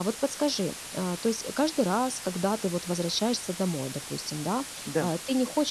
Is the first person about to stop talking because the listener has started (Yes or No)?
No